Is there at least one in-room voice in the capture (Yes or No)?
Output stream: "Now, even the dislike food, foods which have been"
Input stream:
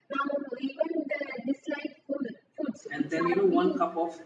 Yes